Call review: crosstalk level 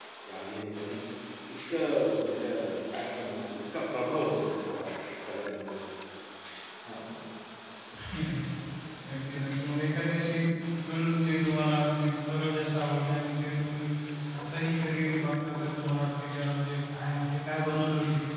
none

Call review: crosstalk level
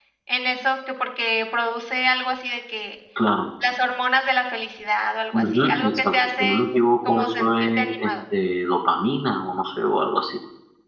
present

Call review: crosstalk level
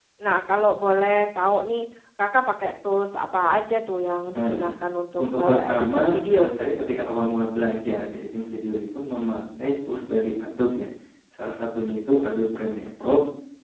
present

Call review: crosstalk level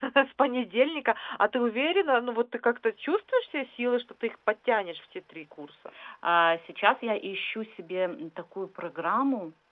none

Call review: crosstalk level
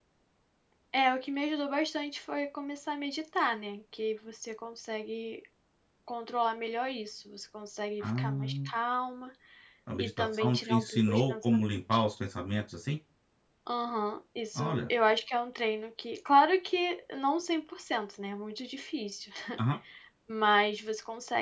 present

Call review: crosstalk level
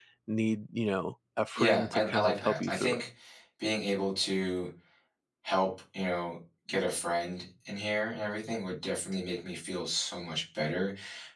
present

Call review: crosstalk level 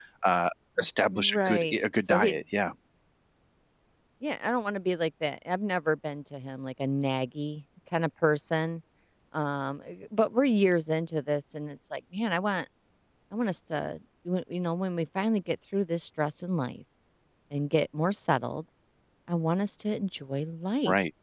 present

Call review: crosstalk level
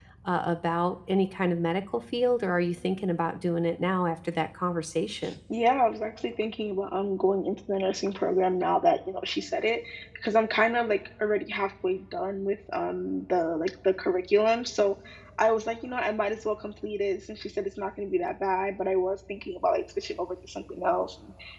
none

